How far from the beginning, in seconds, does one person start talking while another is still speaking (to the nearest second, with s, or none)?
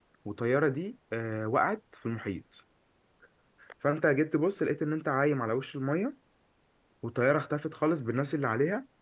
none